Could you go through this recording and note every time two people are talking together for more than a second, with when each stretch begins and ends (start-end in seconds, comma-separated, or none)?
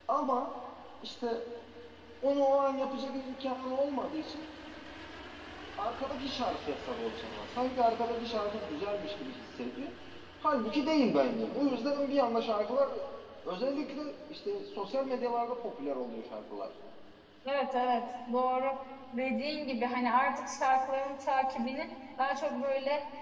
none